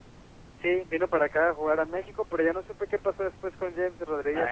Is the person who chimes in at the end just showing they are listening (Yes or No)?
No